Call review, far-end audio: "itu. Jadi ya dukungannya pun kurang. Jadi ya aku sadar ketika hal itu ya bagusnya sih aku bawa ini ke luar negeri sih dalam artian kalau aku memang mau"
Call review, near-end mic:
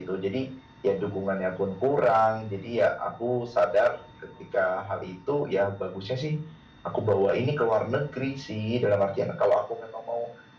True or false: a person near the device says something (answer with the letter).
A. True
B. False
B